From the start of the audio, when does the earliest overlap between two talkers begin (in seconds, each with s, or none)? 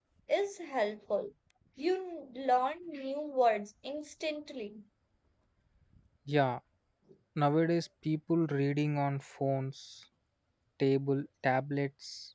none